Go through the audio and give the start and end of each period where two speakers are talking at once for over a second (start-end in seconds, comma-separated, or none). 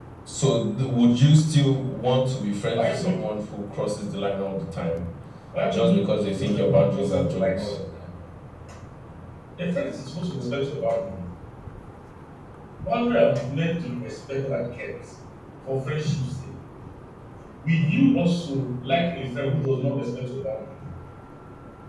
5.7-7.8